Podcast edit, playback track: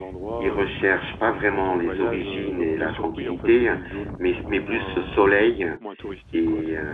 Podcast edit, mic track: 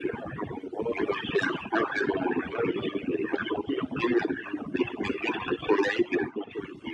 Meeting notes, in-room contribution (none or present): none